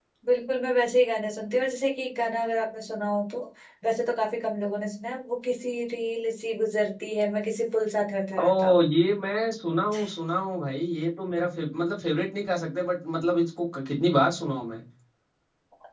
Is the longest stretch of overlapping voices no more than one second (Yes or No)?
Yes